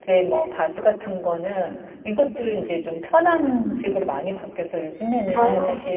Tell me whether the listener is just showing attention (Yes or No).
Yes